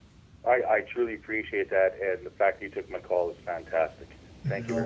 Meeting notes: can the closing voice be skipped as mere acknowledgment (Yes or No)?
No